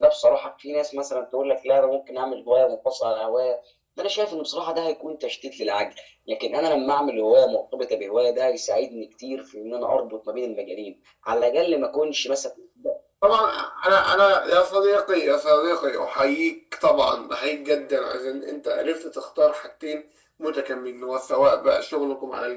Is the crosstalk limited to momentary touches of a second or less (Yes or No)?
Yes